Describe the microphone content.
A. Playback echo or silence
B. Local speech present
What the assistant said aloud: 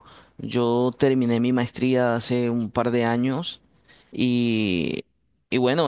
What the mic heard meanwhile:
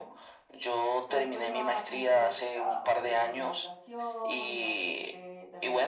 B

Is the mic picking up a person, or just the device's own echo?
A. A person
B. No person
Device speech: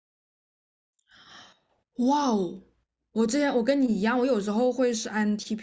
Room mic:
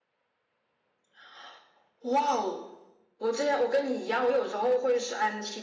B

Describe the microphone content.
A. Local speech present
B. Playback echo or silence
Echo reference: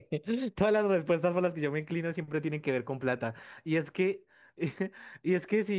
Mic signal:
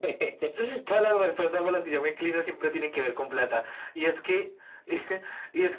B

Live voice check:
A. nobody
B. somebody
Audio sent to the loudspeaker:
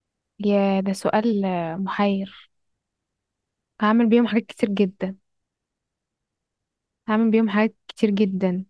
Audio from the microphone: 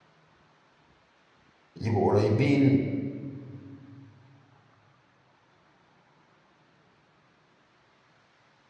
B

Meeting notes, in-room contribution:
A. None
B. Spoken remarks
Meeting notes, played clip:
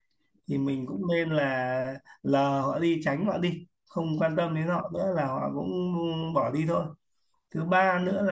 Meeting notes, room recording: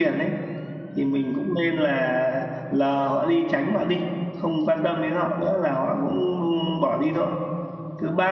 A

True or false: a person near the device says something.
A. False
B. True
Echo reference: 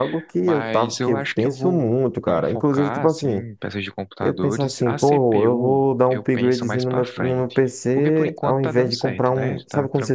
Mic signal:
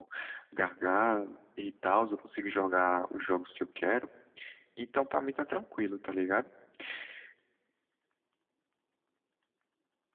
B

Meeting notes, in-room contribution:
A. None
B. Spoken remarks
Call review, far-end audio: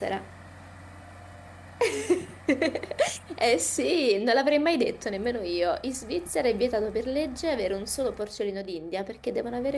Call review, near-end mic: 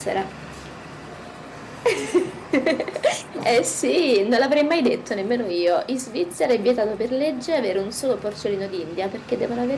A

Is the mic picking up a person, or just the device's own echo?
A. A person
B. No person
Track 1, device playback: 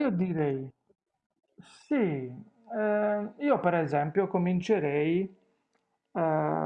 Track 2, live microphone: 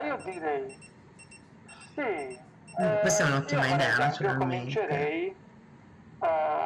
A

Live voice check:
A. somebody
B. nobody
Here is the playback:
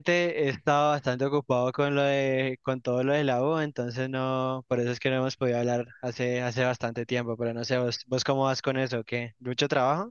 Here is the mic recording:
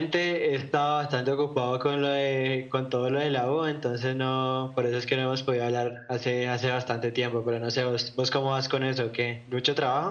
B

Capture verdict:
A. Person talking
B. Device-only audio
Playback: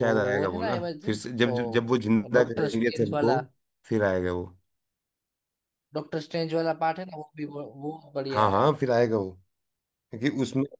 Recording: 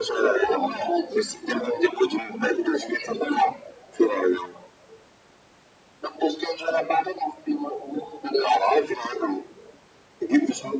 B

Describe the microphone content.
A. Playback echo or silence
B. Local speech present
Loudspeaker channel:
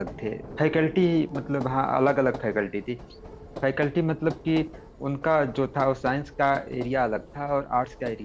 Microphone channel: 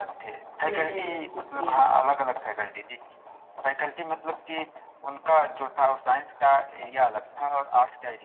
B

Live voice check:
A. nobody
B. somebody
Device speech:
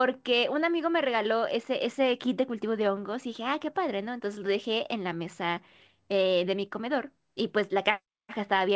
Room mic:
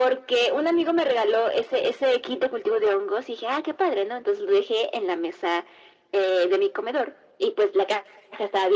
A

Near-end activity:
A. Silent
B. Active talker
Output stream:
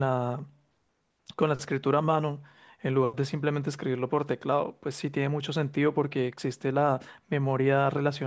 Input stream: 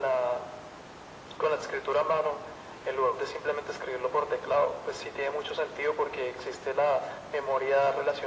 A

